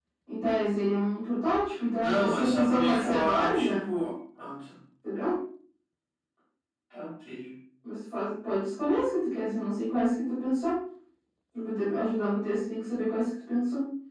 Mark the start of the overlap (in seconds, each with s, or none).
2.0 s